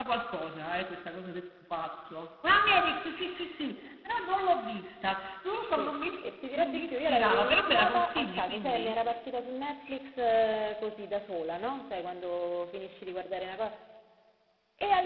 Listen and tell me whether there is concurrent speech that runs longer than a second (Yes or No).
Yes